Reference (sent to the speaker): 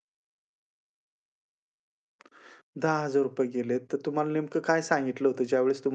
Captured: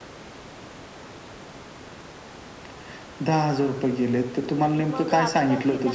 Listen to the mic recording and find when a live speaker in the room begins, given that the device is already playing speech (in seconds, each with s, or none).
4.7 s